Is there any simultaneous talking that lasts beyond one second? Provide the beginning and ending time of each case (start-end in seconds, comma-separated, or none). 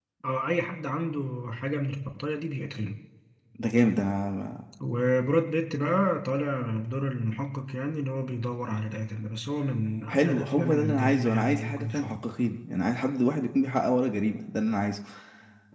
10.1-12.1